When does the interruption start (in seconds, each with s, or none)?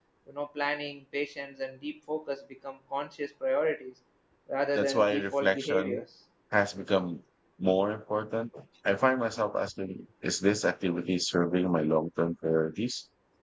4.8 s